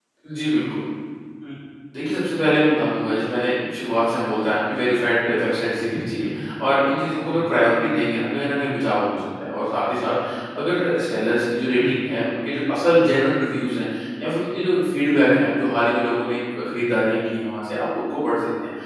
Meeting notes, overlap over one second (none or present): none